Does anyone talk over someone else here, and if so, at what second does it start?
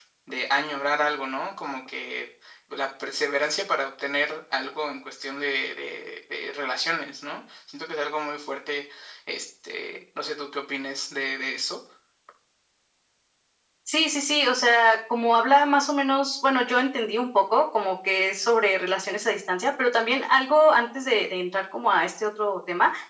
none

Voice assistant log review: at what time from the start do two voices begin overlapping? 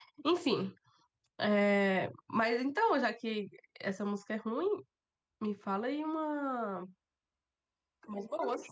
none

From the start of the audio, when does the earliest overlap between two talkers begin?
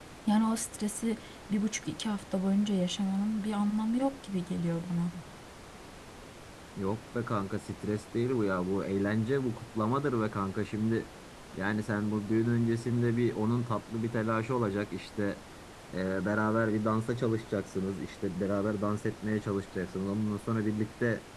none

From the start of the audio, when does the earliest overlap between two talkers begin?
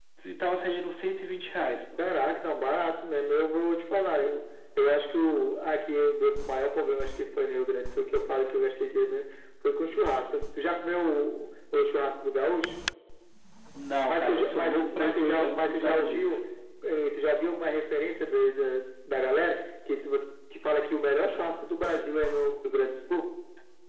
14.1 s

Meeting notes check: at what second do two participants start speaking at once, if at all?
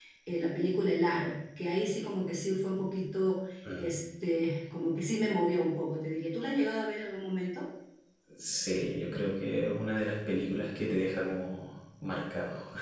none

